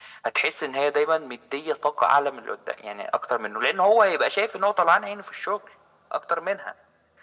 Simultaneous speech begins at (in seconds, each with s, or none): none